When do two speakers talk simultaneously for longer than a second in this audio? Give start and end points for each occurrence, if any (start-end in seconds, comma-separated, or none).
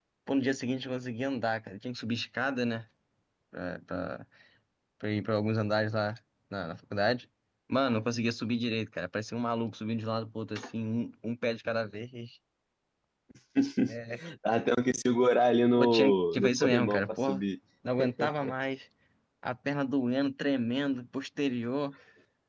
15.8-17.4